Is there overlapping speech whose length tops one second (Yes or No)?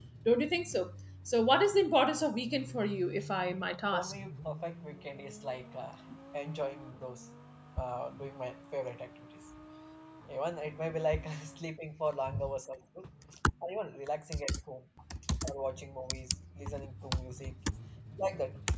No